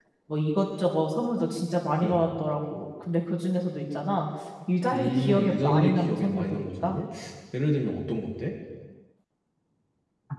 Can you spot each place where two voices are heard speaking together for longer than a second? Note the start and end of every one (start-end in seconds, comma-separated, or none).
4.9-6.9